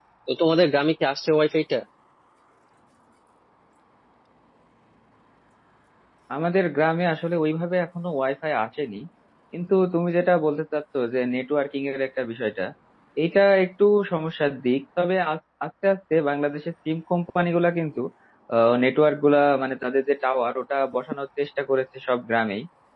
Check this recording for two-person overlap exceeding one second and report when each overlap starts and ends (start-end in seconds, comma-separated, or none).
none